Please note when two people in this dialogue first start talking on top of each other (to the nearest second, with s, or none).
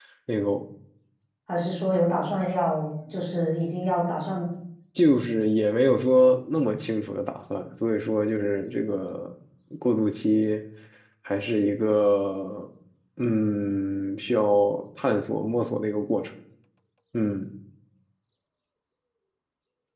none